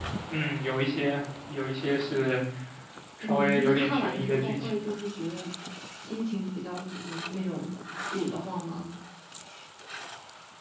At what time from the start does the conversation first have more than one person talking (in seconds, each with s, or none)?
3.2 s